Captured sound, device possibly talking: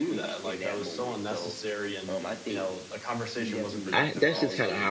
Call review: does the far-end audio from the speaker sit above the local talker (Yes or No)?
No